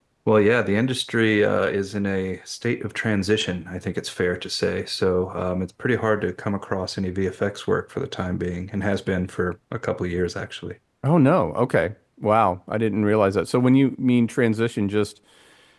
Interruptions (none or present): none